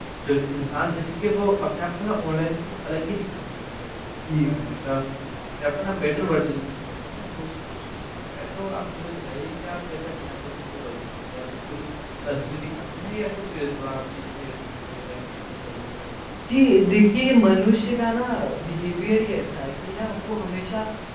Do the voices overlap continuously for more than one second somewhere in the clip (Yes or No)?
No